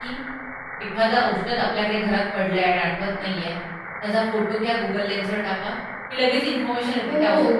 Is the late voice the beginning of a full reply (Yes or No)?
Yes